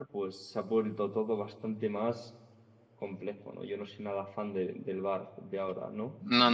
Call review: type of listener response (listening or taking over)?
taking over